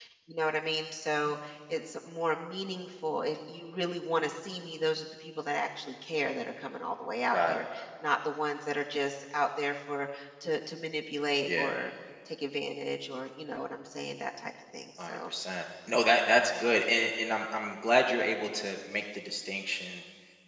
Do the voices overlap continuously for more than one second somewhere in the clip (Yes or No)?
No